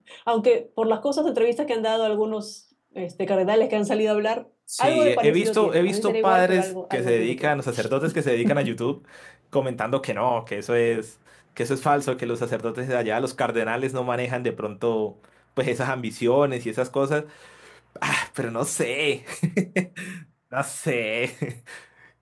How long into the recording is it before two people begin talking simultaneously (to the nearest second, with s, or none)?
5 s